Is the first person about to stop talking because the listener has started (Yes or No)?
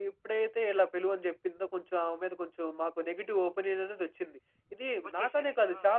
No